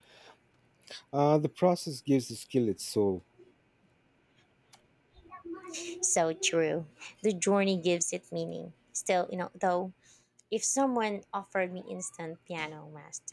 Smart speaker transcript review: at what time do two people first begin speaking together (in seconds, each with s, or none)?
none